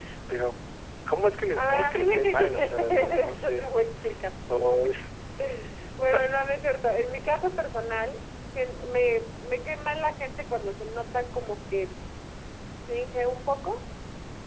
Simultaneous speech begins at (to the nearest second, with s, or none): 2 s